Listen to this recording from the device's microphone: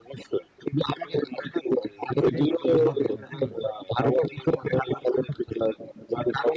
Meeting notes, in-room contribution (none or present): present